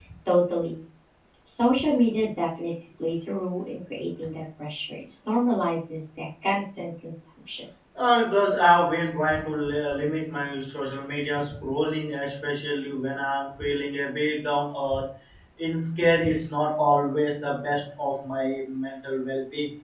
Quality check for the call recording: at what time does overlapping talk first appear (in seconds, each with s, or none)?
none